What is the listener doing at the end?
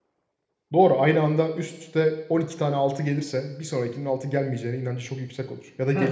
taking over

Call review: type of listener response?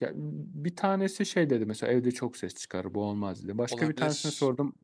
listening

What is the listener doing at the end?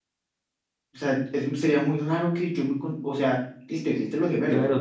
taking over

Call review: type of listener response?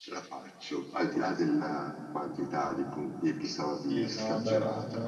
taking over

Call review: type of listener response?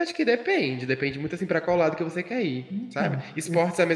listening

